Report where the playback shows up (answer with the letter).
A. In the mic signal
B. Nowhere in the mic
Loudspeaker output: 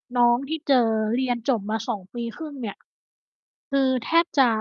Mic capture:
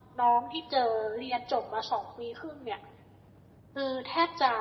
A